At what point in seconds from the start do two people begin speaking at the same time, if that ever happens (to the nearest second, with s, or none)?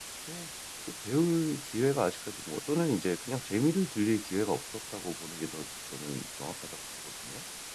none